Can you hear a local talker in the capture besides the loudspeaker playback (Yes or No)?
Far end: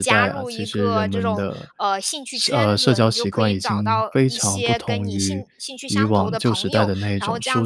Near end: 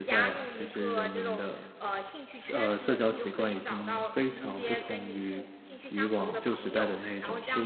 No